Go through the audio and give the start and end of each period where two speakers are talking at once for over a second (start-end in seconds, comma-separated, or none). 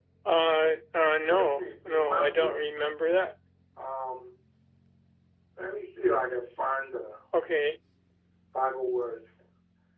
1.3-2.5